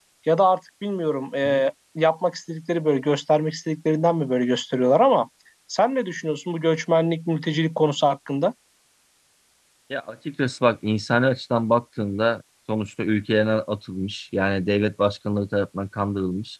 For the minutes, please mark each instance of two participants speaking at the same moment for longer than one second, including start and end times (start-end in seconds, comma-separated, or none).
none